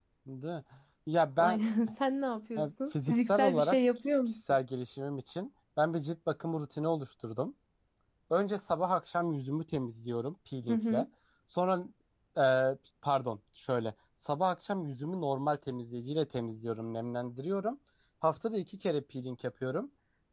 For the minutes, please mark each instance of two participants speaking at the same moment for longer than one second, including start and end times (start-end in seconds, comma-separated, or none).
2.6-3.8